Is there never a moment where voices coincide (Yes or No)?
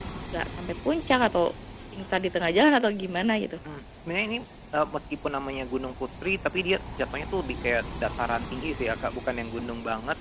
Yes